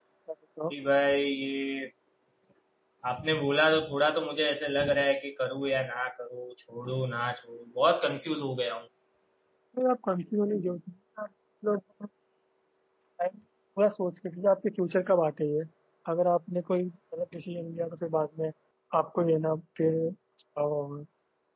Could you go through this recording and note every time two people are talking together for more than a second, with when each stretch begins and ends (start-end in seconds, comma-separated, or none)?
none